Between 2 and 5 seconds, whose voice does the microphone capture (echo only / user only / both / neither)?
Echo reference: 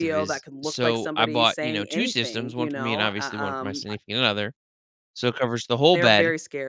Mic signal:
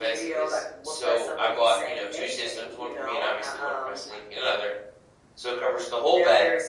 echo only